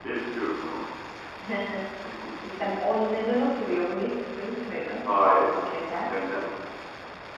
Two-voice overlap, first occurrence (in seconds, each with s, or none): none